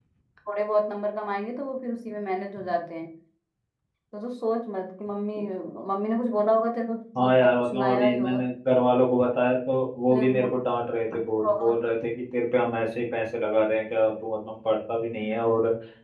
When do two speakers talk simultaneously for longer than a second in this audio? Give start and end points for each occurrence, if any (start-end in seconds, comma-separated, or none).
7.2-8.4